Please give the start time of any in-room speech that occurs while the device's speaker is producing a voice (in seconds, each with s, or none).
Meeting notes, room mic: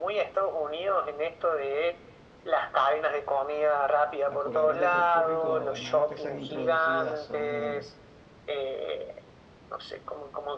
4.2 s